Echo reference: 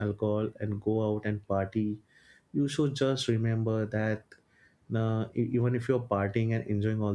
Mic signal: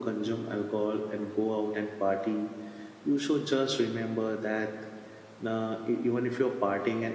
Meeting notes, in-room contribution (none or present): none